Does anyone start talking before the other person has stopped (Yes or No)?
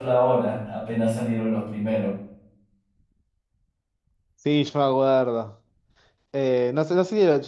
No